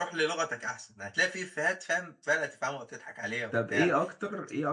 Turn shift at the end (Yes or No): Yes